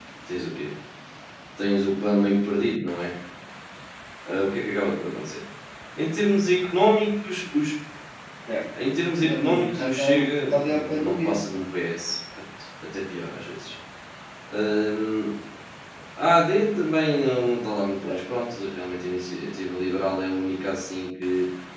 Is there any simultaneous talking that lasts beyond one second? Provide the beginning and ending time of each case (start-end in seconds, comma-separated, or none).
9.2-11.3